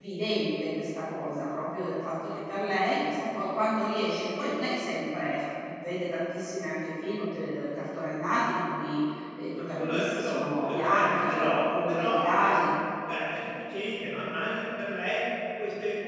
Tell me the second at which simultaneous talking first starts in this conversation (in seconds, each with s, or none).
9.7 s